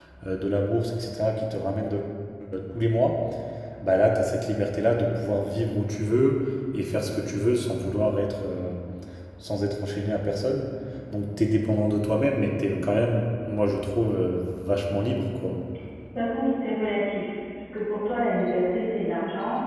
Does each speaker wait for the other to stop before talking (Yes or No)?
Yes